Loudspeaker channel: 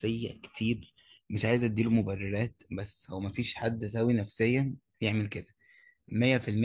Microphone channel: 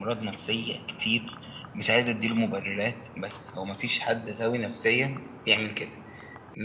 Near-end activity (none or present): none